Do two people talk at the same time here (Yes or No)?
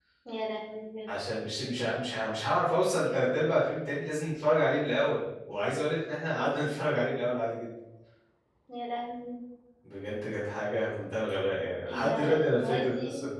Yes